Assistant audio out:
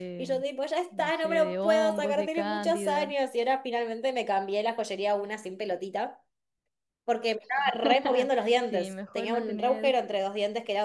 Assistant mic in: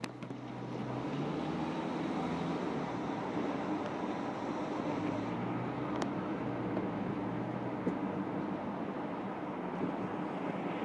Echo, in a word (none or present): none